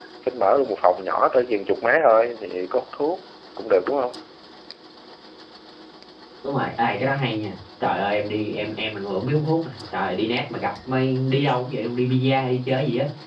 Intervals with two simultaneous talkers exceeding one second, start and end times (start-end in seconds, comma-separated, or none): none